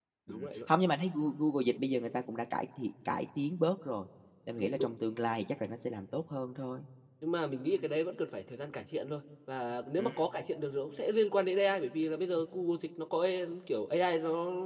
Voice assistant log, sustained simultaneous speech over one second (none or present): none